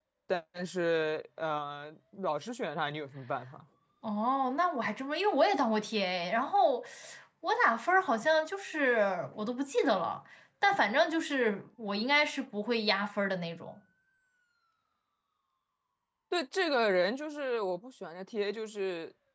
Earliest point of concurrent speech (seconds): none

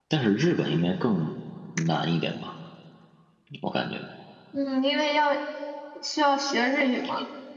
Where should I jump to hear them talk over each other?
none

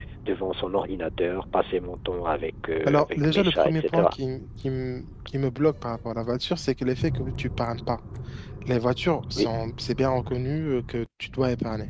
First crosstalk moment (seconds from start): 2.9 s

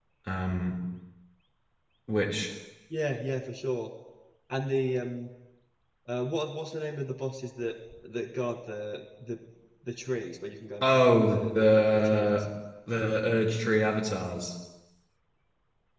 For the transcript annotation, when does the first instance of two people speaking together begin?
10.8 s

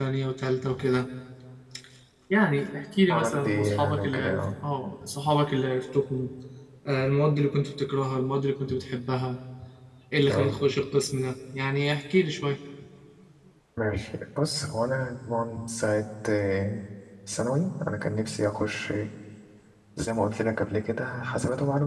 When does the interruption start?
3.1 s

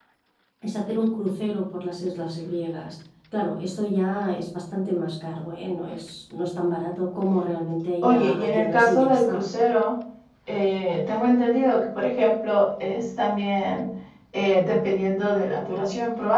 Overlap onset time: 8.0 s

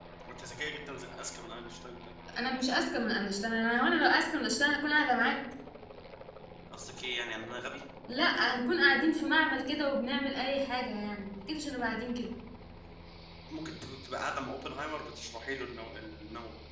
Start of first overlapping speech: none

